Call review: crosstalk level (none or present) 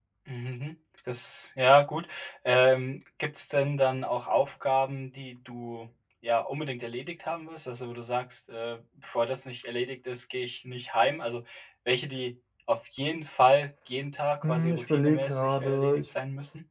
present